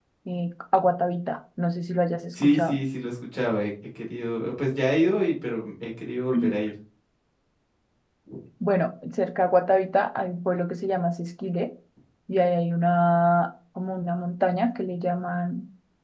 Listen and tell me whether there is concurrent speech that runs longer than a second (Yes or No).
No